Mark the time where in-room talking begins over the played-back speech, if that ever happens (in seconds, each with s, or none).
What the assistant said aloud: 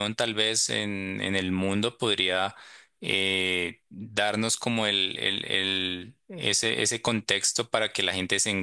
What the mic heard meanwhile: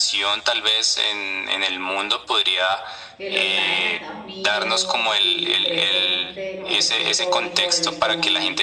3.1 s